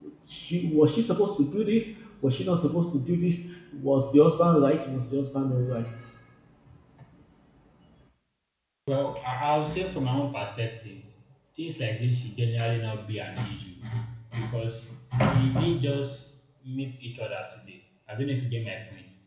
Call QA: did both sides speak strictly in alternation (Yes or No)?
Yes